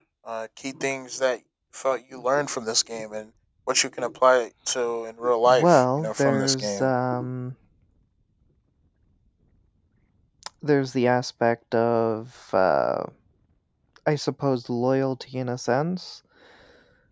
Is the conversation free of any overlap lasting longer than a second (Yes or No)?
No